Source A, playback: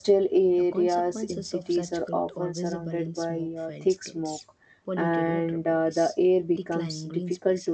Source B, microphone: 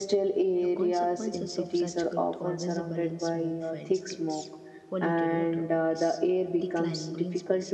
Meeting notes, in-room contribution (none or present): none